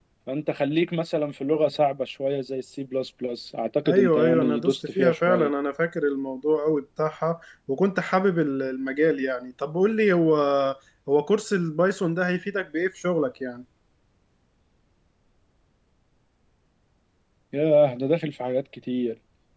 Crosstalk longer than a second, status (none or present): present